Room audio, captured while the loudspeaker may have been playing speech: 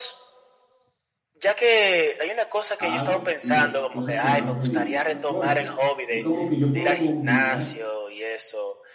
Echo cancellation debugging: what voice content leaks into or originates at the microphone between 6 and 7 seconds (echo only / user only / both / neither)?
both